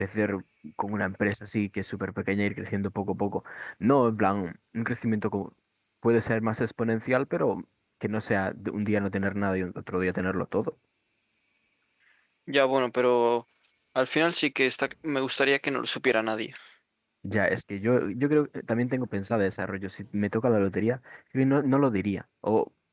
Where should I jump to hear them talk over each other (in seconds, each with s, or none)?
none